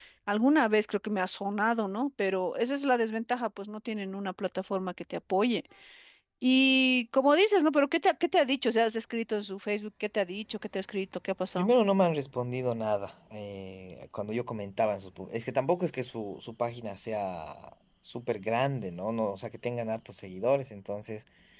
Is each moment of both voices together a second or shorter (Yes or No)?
Yes